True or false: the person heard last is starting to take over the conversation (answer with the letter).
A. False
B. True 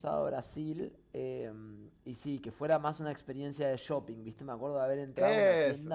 A